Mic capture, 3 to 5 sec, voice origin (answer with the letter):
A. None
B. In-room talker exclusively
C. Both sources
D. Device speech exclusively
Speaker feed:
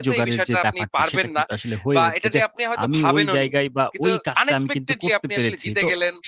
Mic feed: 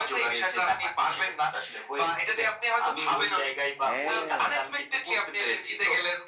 C